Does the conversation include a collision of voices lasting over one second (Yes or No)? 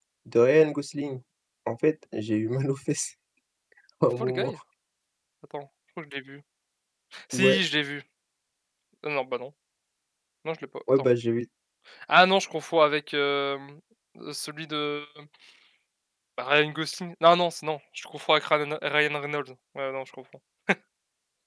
No